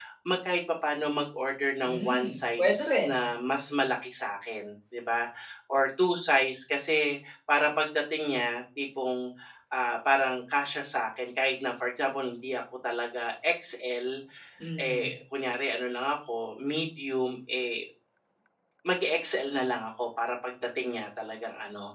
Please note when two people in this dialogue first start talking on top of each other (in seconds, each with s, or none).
1.8 s